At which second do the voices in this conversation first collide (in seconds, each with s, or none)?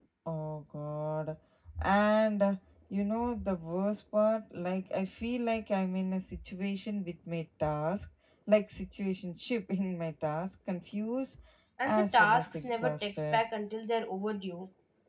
11.8 s